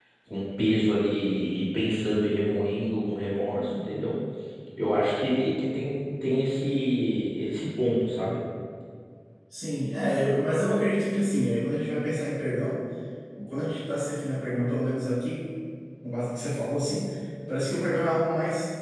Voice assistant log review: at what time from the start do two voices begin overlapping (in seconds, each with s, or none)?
none